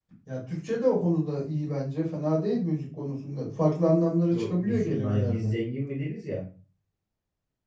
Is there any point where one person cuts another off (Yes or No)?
Yes